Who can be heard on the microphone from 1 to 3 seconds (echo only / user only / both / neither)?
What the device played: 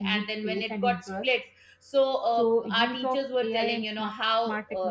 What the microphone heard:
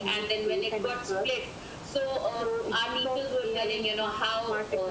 echo only